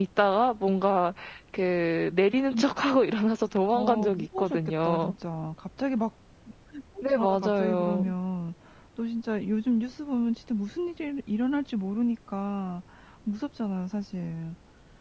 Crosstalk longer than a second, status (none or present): present